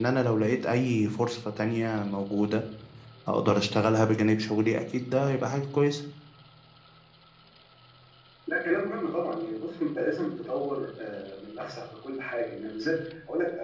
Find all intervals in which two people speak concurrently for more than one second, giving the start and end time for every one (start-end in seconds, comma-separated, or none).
none